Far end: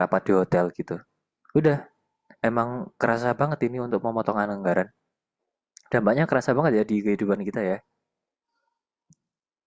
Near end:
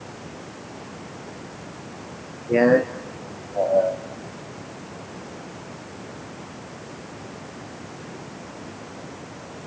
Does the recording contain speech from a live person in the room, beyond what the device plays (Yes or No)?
Yes